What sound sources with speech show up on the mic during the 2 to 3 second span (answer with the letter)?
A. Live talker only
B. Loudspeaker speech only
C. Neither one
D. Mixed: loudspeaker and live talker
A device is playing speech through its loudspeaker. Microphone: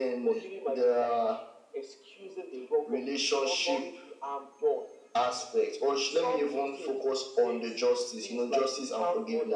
B